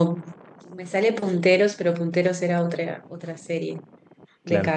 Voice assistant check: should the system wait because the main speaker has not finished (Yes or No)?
Yes